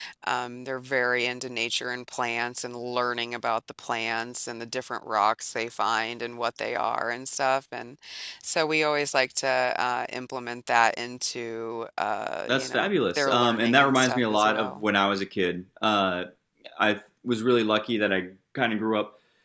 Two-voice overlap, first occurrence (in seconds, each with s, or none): 12.5 s